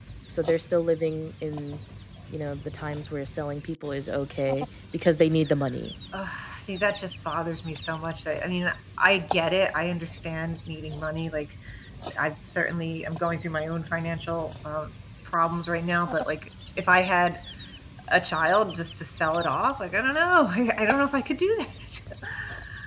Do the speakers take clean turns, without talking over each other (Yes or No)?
Yes